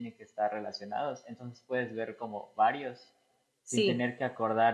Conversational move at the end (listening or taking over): listening